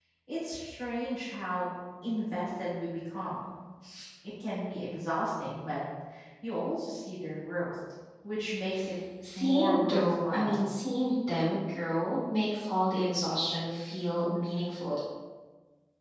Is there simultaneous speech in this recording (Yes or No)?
Yes